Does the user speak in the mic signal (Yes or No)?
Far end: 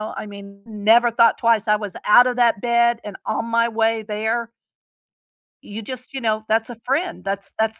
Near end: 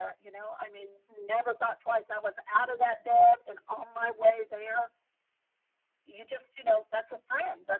No